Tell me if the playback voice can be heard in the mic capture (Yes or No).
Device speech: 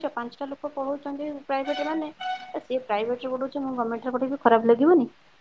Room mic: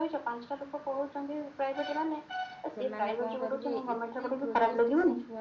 Yes